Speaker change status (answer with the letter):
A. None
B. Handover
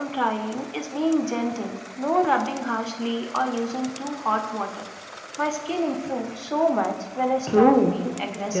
B